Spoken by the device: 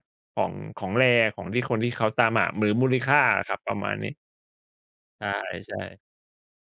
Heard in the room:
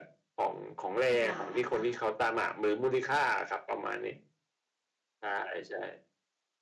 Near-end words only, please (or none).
กี่บาทอะคะ